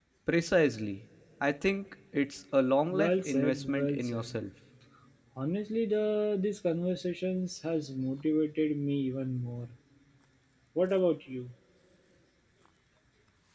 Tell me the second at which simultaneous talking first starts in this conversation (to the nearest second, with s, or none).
3 s